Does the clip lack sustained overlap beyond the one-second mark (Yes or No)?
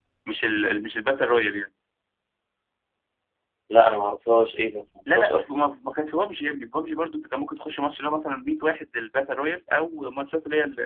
Yes